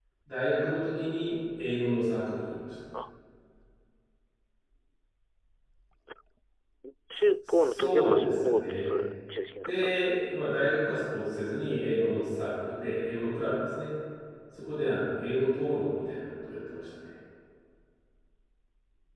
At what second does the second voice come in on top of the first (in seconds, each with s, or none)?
7.5 s